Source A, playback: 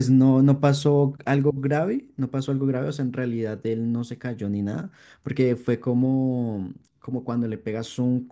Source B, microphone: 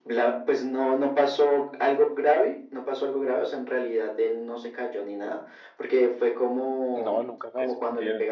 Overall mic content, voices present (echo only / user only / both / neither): both